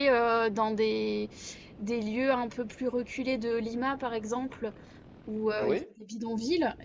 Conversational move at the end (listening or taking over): listening